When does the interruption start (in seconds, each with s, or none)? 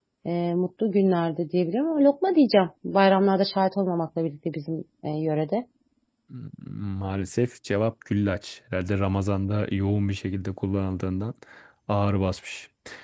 none